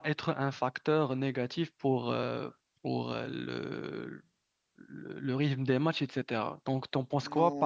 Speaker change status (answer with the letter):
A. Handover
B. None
A